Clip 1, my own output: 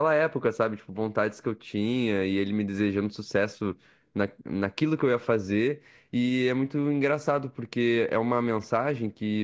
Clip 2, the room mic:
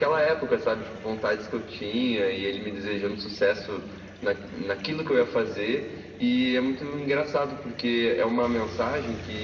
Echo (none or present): present